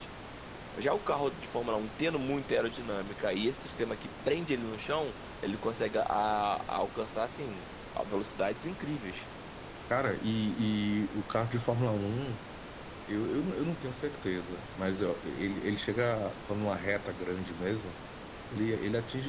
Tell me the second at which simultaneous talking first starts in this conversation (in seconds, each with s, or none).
none